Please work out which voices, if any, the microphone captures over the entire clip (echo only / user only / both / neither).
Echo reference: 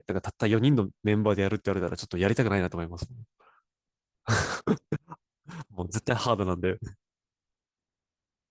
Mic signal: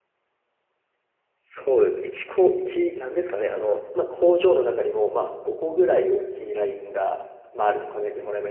user only